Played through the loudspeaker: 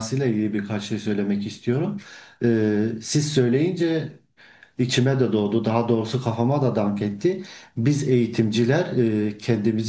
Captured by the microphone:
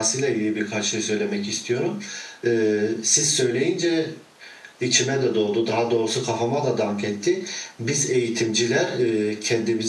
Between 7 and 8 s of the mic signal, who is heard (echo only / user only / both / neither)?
echo only